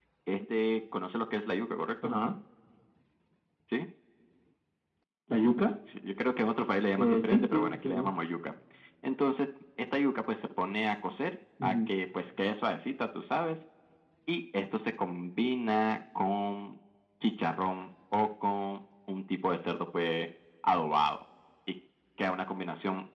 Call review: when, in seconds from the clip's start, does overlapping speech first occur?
7.0 s

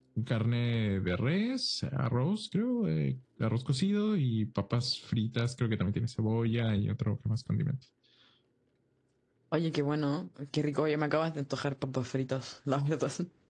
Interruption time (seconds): none

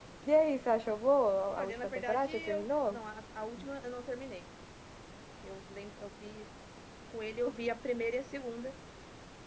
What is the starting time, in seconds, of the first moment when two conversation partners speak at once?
1.6 s

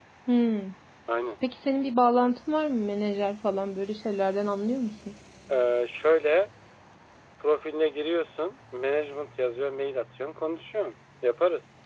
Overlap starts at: none

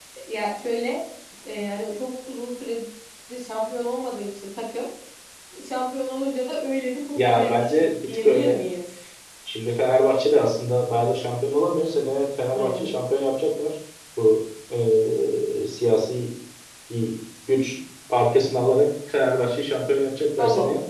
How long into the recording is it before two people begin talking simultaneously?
7.2 s

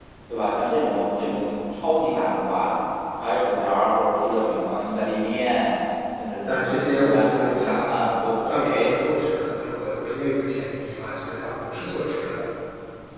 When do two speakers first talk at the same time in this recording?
6.5 s

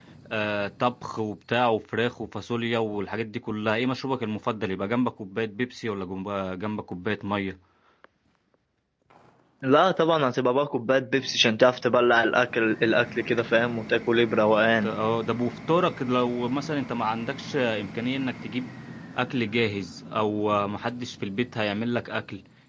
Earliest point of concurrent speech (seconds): none

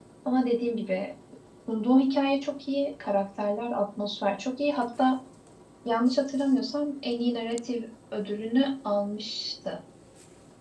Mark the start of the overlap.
none

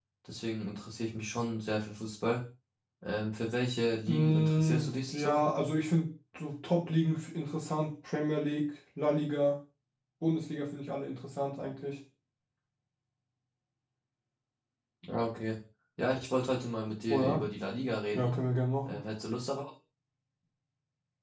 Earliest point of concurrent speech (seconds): 4.1 s

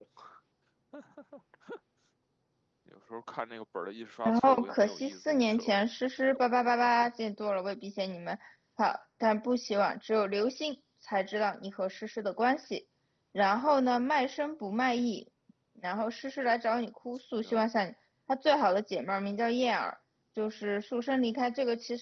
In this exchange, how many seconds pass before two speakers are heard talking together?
4.2 s

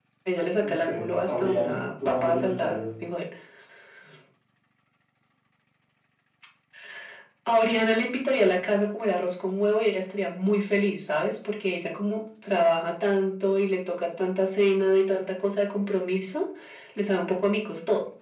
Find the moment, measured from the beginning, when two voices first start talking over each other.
0.6 s

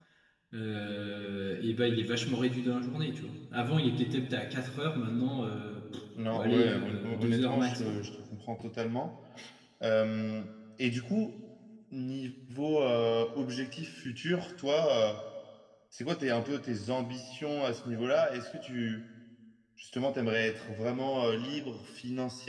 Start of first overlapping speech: 6.4 s

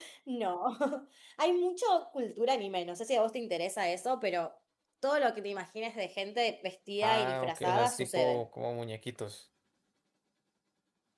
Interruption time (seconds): 7.0 s

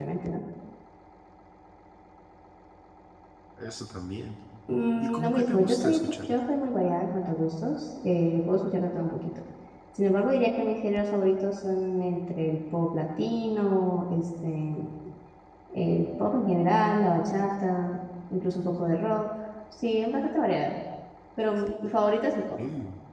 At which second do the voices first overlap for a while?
5.0 s

